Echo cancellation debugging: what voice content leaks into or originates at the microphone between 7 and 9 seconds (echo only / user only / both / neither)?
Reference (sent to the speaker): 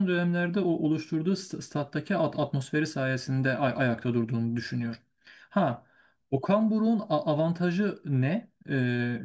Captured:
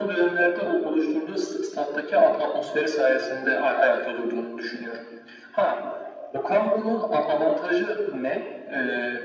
echo only